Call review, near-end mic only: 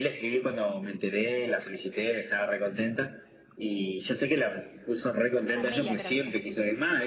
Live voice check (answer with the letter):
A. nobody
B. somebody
B